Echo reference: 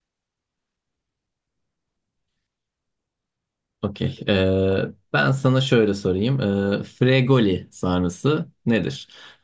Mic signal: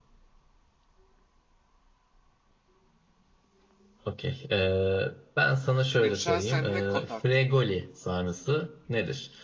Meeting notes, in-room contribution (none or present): present